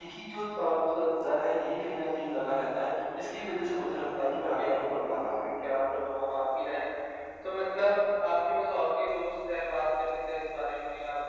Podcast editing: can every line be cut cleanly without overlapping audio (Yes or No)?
No